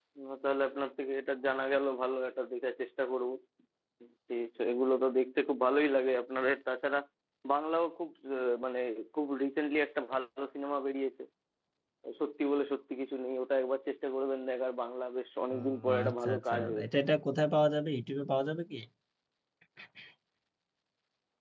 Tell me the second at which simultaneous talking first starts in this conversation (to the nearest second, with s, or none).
16 s